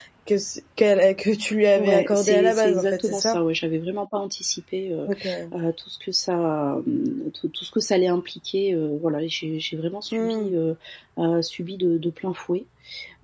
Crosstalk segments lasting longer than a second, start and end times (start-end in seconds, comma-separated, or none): 1.8-3.4